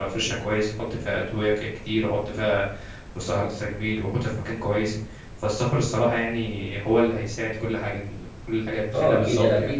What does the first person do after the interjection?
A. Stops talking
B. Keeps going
A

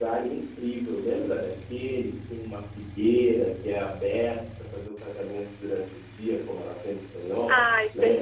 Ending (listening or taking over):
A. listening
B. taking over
B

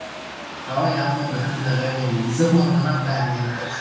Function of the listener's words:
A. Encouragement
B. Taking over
A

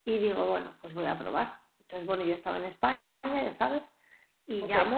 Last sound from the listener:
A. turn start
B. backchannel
B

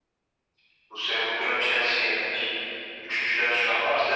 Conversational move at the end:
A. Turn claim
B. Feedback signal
B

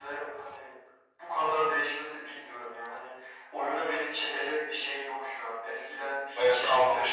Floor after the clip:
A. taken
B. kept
B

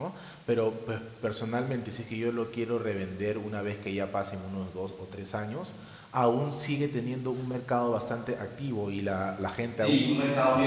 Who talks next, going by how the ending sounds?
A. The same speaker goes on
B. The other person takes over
B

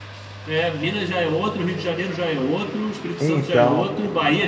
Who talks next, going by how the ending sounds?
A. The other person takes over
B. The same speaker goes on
B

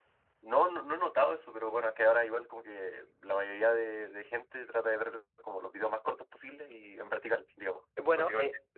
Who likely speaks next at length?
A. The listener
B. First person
A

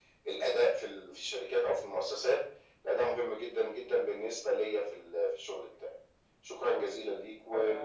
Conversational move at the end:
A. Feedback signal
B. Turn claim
B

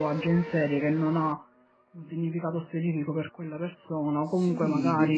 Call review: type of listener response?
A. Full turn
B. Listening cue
A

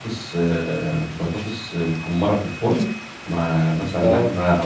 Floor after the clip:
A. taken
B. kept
B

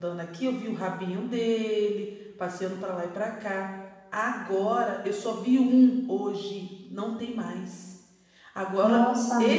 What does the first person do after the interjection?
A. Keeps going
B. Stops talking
A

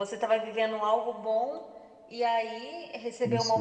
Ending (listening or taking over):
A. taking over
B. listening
B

